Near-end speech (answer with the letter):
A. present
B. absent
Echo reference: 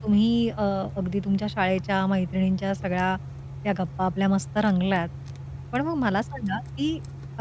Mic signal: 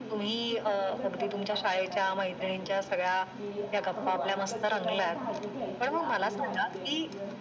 A